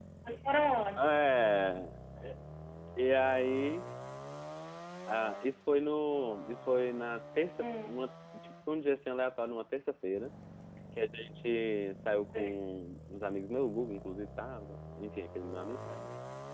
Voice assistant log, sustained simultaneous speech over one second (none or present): none